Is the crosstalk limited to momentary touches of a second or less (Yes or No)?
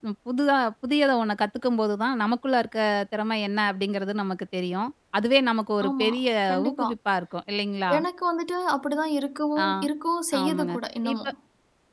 Yes